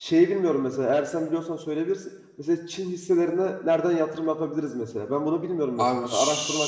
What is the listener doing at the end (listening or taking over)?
taking over